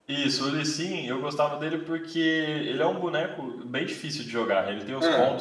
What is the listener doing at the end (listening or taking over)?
listening